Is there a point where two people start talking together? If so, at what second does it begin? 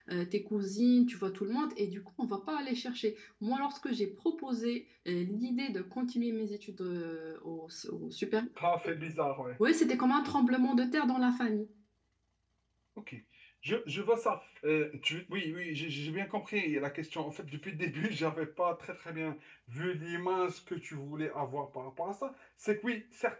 none

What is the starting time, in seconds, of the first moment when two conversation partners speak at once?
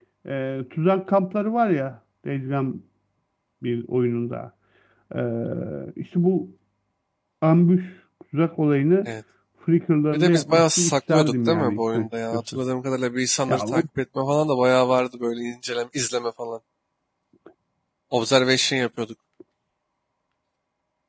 10 s

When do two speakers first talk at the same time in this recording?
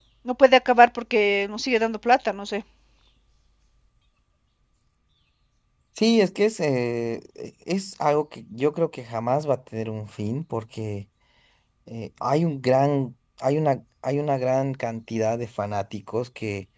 none

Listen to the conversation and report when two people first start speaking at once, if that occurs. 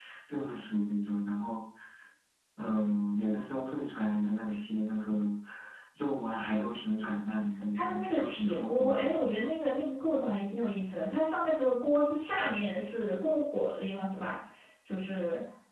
8 s

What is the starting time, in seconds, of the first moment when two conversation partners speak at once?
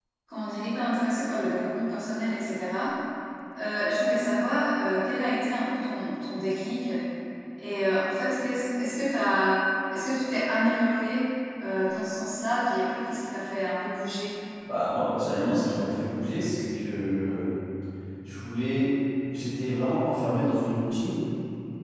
none

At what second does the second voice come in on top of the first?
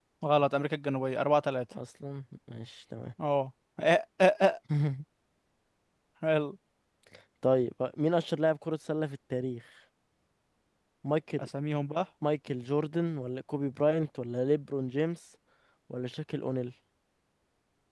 none

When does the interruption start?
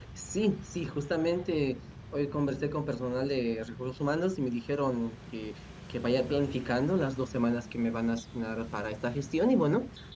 none

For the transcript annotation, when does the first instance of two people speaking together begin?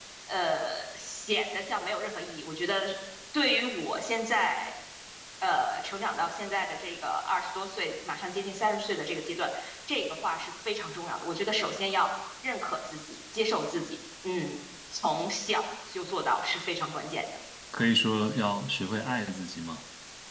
none

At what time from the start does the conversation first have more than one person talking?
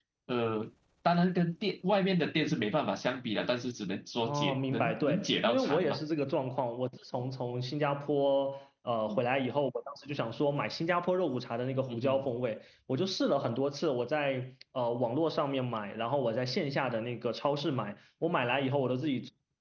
4 s

